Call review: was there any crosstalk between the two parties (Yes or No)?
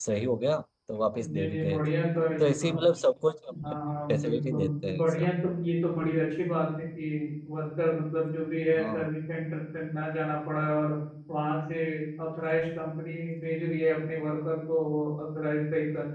Yes